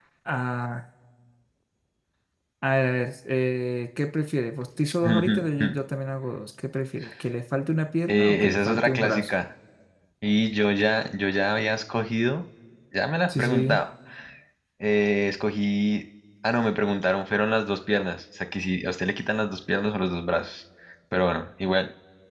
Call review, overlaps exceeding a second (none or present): present